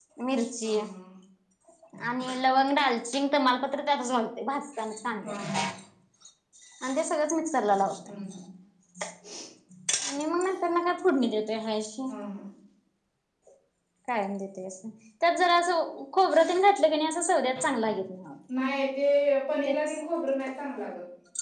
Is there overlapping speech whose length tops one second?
No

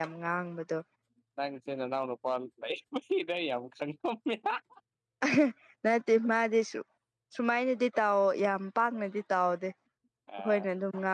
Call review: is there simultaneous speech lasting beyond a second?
No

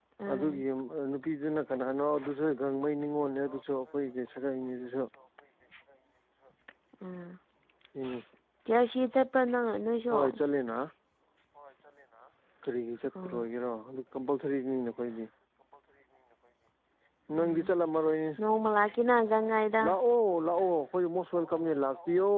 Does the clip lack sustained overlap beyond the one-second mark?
Yes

